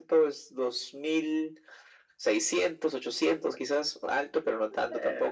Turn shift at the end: Yes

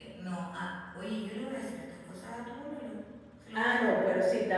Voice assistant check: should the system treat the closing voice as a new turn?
Yes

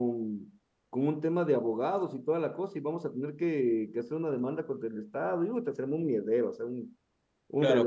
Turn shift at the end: Yes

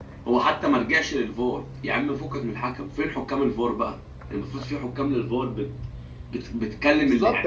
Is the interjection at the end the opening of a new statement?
Yes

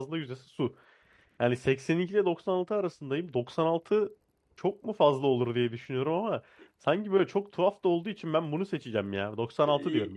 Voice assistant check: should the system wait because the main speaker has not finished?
No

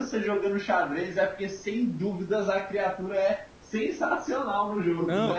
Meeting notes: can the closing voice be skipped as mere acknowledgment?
No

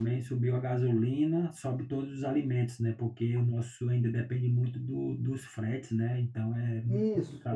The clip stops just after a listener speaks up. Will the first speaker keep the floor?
No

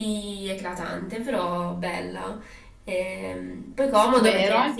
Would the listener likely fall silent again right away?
No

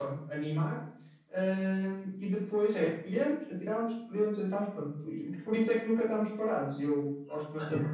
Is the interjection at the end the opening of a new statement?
Yes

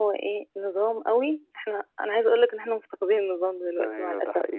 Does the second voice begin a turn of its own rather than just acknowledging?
Yes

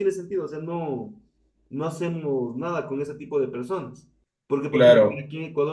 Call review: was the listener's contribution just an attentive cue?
Yes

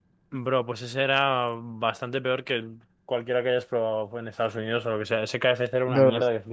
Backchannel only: No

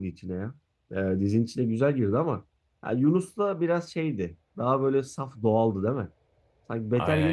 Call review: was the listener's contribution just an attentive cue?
Yes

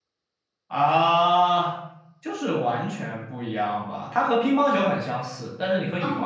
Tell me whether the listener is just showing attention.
Yes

